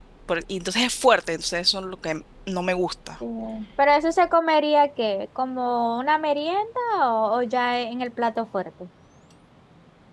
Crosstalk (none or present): none